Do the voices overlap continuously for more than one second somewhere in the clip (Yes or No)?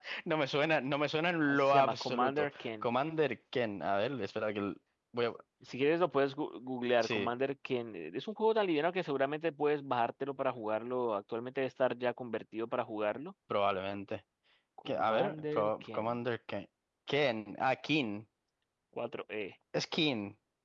Yes